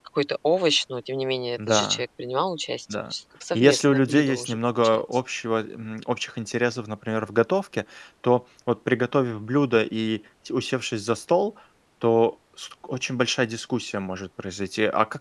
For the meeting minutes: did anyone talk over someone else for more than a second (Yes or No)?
Yes